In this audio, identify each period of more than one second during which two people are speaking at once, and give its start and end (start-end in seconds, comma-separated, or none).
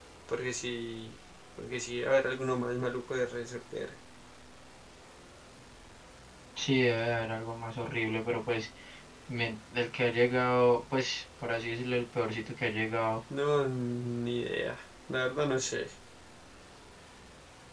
none